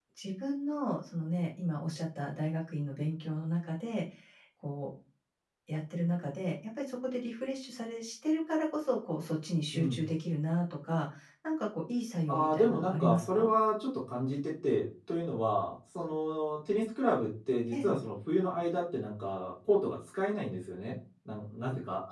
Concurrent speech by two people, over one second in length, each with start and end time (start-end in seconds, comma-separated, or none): 12.3-13.5